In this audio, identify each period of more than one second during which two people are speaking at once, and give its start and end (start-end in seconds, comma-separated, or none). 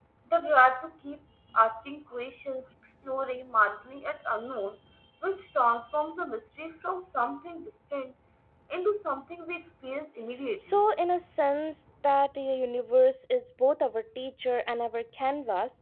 none